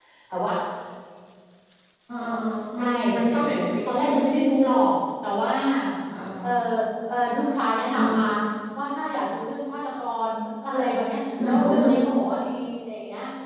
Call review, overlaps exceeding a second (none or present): present